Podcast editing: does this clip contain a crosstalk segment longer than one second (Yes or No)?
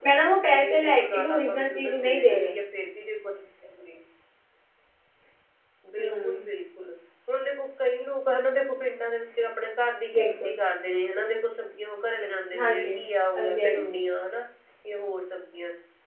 Yes